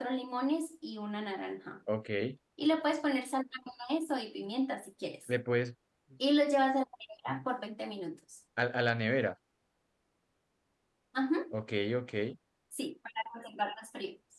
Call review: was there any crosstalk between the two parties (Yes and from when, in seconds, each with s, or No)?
No